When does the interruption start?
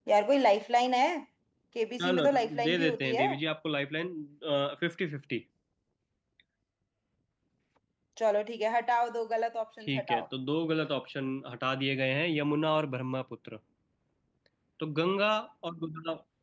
2.0 s

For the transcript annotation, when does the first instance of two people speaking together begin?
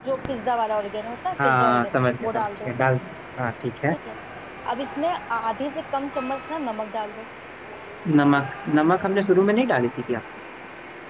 1.3 s

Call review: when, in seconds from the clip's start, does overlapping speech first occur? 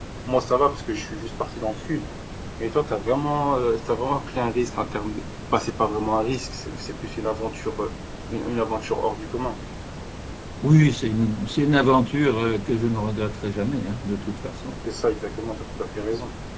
none

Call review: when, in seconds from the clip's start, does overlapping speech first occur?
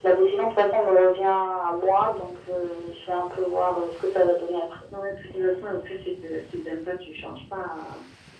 none

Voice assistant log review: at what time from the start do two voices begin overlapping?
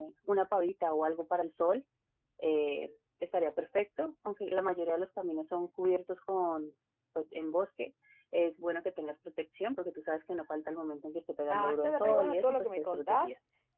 11.5 s

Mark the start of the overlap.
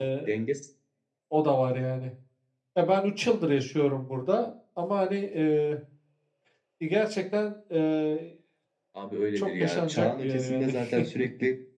9.4 s

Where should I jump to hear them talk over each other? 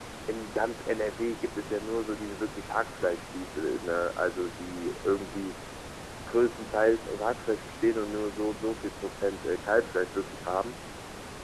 none

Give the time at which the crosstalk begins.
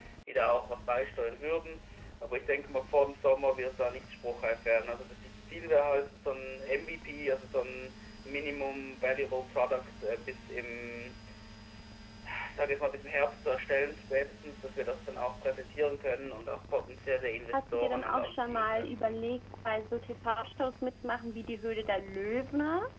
17.5 s

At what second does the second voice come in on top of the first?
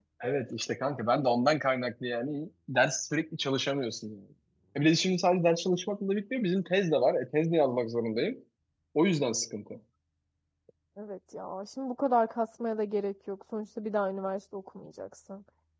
none

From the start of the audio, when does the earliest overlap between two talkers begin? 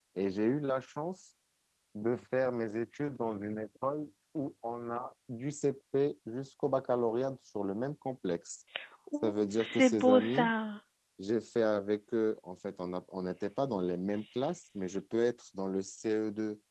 9.2 s

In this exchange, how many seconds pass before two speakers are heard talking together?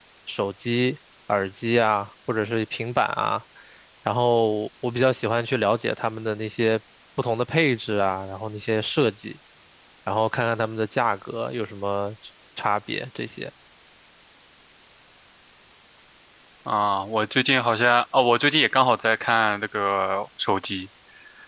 none

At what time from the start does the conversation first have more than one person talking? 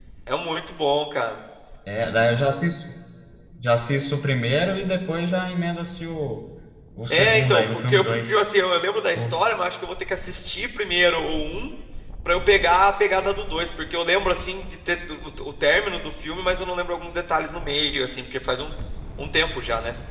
7.1 s

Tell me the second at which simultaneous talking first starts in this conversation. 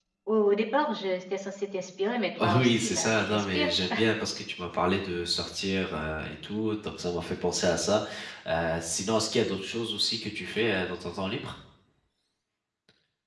2.4 s

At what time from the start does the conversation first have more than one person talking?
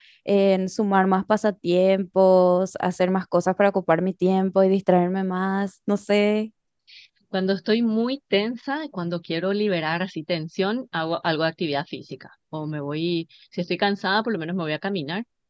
none

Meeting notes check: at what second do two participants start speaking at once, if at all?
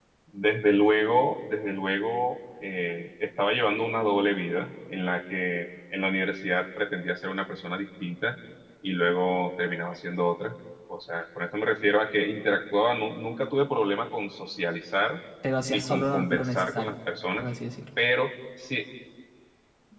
15.7 s

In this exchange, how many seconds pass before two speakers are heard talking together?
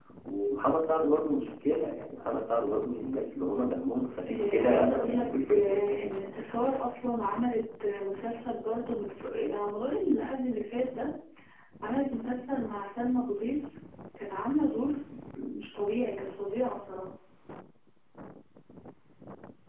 4.3 s

